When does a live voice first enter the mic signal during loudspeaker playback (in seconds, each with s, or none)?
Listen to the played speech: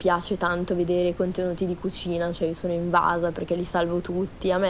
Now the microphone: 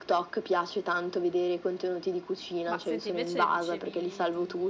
2.7 s